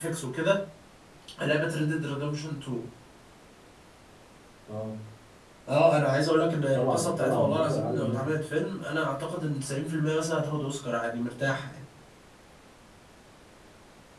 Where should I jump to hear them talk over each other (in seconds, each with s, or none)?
6.7 s